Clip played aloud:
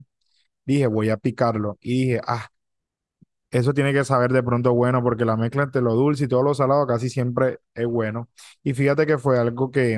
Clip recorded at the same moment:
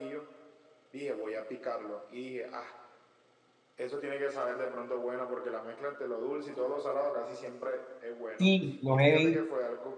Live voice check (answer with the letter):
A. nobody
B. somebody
B